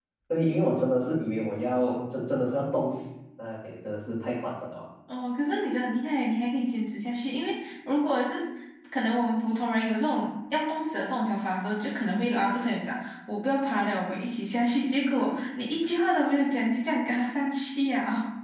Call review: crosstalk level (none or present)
none